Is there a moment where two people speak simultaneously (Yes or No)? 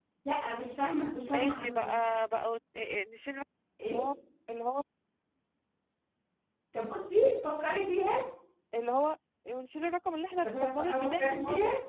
Yes